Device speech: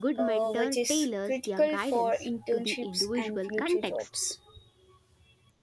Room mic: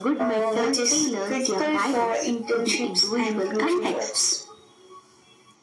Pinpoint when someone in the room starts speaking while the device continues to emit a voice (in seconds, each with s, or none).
none